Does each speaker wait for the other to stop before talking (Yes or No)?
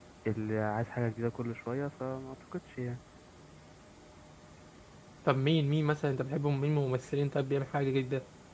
Yes